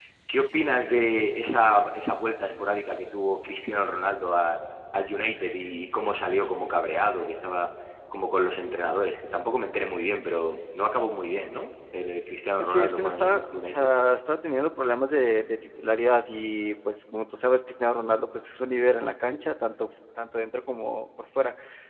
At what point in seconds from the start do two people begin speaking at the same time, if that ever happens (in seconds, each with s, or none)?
12.6 s